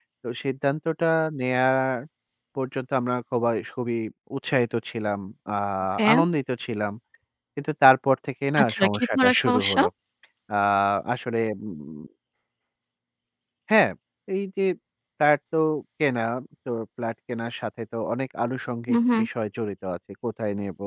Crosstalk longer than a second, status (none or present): present